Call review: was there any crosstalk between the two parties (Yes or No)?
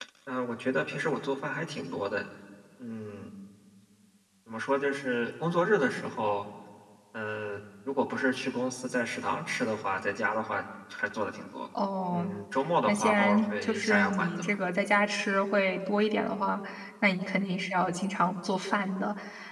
Yes